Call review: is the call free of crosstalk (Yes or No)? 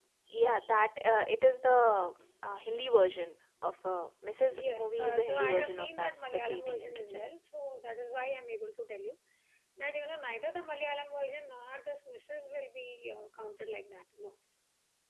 No